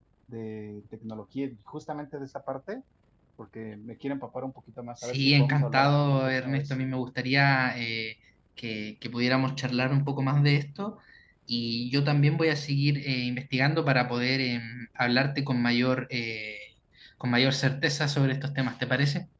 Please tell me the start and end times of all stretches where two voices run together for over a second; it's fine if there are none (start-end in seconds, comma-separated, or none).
5.0-6.7